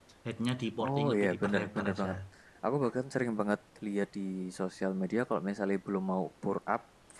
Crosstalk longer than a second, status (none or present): present